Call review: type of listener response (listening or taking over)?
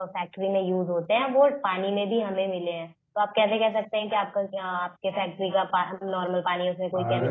taking over